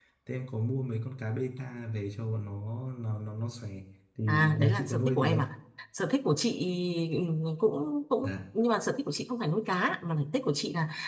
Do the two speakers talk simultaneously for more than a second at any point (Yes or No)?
Yes